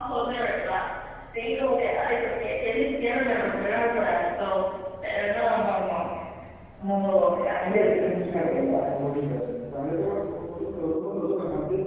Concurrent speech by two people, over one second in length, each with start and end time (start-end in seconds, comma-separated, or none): 7.6-8.9